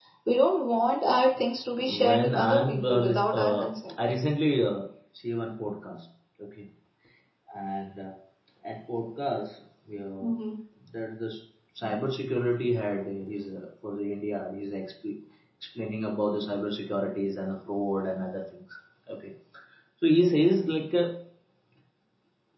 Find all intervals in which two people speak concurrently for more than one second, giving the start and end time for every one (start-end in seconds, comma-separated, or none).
2.1-3.6